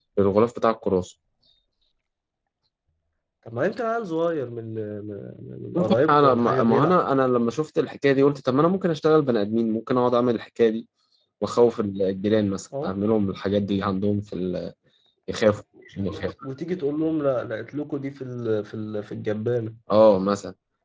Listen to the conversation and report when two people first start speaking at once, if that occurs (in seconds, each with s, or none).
5.8 s